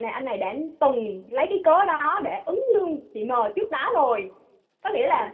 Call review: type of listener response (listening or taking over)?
listening